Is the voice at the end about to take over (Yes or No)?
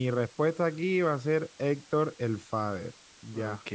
Yes